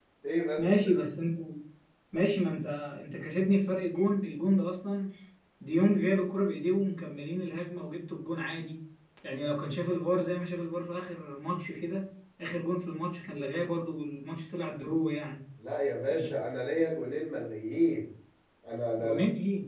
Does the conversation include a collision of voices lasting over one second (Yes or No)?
No